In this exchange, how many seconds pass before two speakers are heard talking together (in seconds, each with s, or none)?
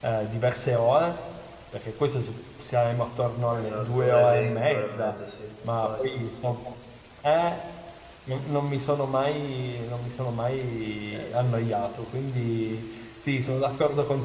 3.6 s